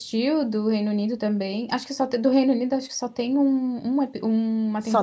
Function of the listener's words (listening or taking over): taking over